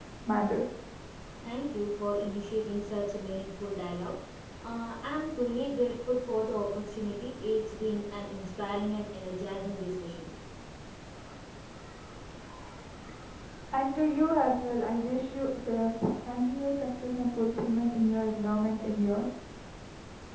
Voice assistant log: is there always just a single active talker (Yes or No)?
Yes